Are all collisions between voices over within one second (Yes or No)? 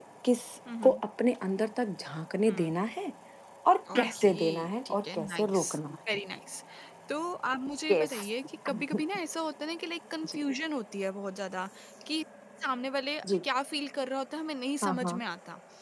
No